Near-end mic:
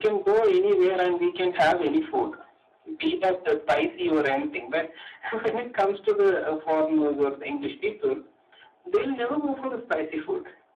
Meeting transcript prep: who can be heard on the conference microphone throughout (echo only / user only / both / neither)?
echo only